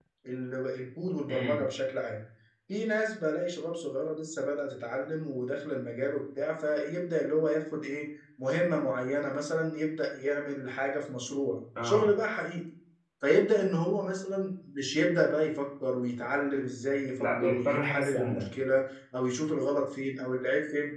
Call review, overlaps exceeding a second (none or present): present